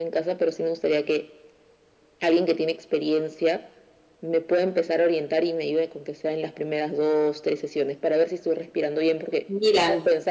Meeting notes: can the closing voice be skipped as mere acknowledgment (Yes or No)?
Yes